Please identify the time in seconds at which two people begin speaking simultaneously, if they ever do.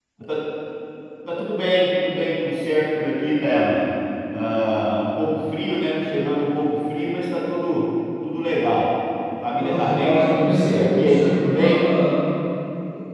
9.5 s

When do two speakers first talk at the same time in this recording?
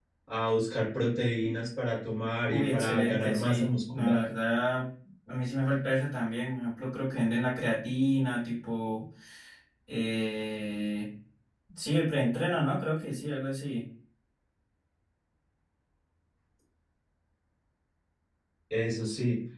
2.5 s

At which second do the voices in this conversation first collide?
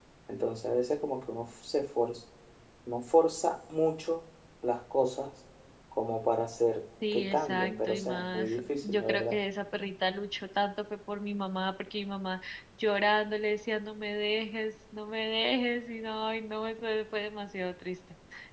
7.0 s

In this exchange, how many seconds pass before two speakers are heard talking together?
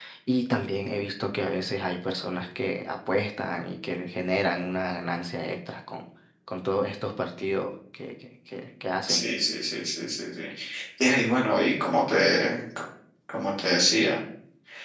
none

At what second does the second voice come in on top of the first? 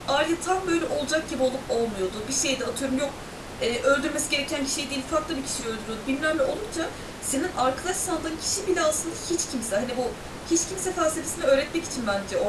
none

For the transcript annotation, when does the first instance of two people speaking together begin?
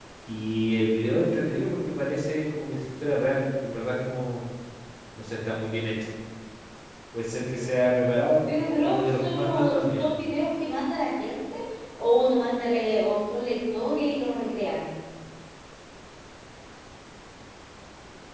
8.5 s

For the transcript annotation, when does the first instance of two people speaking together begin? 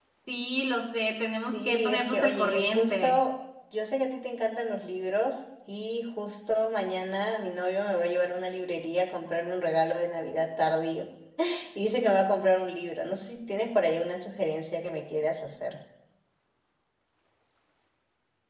1.4 s

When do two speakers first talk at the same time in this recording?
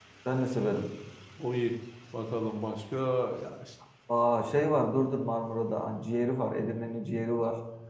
none

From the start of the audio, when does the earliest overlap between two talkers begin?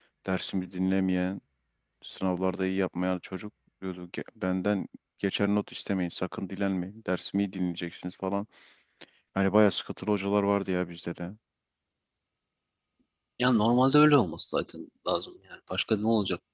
none

